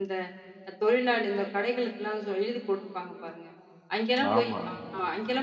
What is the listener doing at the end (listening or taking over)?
listening